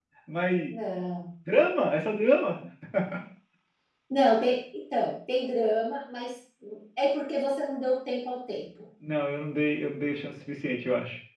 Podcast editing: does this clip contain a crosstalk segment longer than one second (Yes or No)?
No